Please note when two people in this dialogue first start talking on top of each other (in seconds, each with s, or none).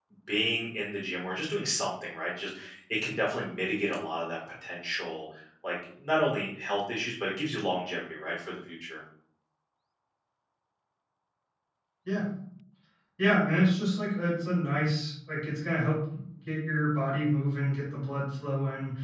none